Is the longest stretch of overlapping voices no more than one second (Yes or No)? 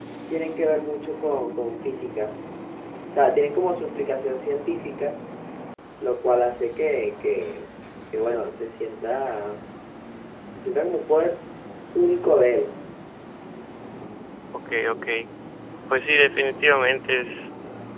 Yes